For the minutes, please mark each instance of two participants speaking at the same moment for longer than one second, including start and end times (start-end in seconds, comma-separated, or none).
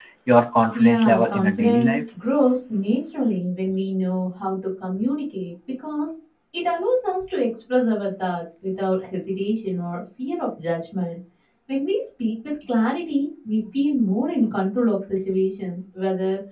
0.7-2.0